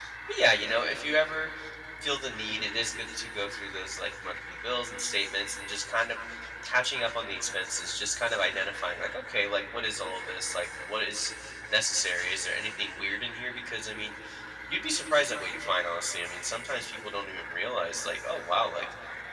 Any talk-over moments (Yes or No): No